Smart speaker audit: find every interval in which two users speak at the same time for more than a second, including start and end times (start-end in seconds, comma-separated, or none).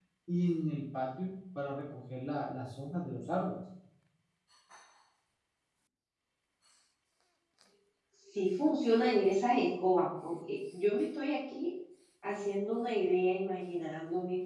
none